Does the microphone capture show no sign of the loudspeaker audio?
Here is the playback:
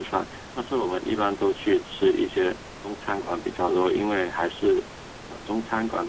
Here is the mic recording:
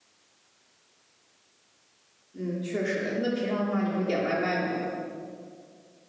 Yes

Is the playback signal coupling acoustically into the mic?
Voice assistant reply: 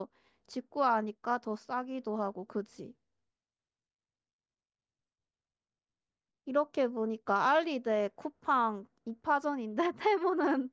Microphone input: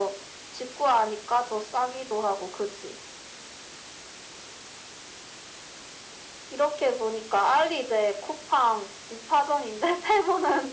Yes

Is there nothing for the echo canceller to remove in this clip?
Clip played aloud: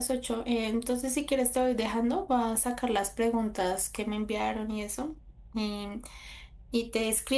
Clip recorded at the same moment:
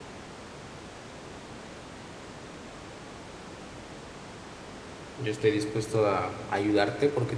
Yes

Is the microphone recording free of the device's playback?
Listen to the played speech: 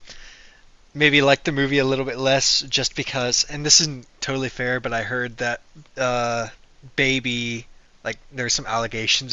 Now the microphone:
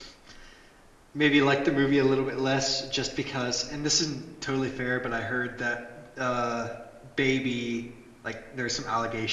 No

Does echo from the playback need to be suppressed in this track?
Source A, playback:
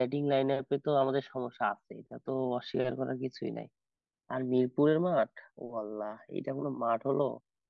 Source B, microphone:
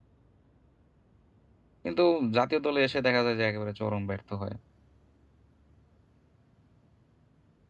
No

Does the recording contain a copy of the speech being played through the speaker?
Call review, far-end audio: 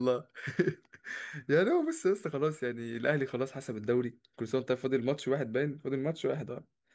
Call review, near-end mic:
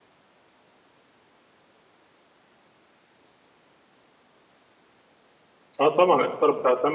No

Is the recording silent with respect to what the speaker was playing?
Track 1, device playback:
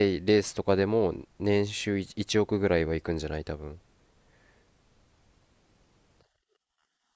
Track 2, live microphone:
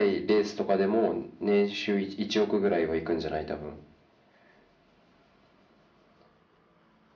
No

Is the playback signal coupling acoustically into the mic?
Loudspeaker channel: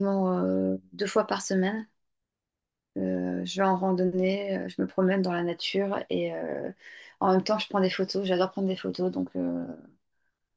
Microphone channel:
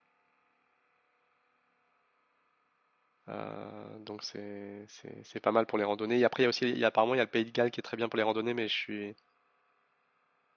No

